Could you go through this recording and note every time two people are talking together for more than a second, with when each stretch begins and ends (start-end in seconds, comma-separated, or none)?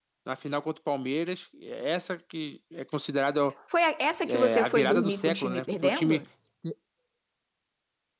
4.2-6.2